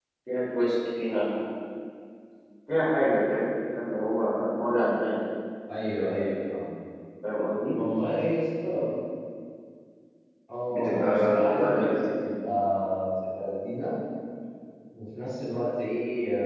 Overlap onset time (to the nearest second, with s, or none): 11 s